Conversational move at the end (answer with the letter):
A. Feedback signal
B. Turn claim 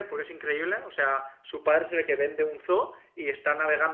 A